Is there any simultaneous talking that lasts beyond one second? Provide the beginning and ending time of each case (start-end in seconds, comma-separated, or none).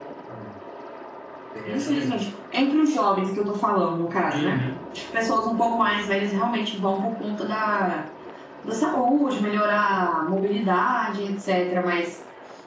none